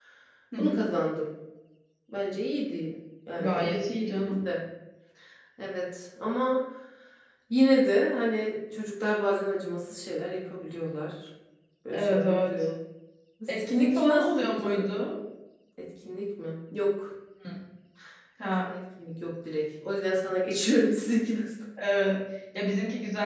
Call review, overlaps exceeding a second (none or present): present